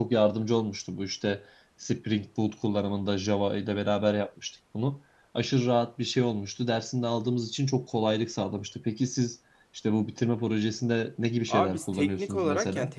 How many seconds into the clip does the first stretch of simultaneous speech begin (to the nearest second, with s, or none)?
11 s